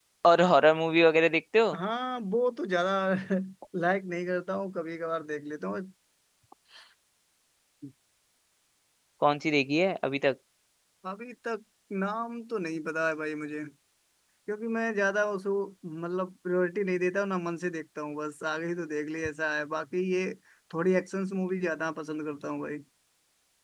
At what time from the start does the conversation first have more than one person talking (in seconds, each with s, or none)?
none